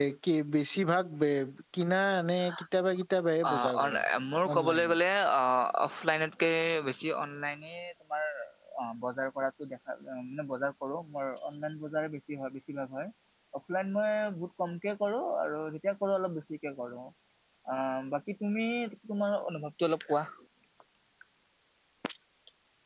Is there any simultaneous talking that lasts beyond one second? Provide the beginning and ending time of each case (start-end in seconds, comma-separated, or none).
none